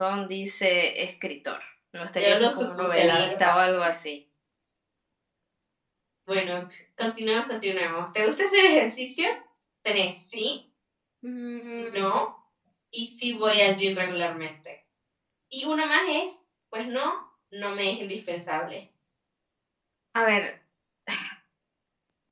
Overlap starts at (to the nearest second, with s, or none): 2 s